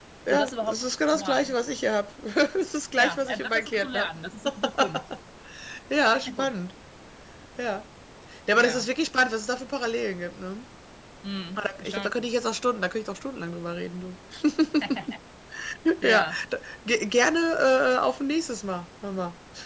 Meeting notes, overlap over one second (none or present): present